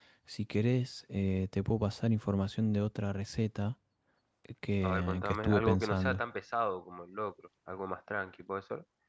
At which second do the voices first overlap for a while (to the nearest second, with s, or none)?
5 s